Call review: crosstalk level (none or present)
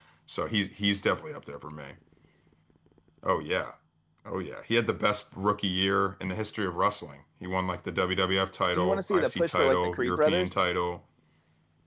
present